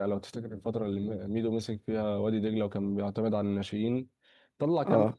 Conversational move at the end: listening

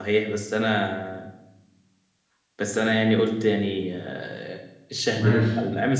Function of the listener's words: listening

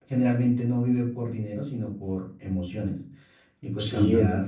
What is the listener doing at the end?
taking over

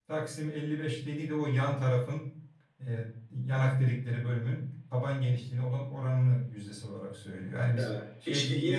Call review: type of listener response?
taking over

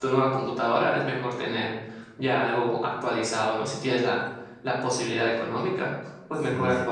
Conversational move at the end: listening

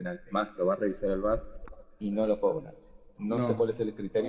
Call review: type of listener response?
listening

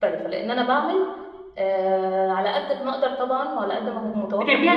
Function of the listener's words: taking over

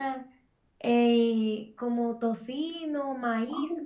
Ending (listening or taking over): taking over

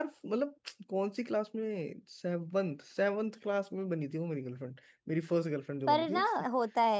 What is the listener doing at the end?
taking over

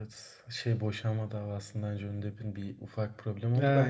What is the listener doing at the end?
listening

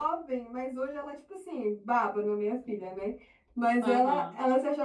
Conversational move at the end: listening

